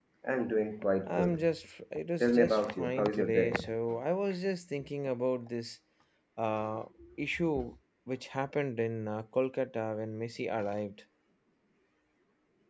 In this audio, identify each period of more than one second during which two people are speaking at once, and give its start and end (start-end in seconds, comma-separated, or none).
2.2-3.5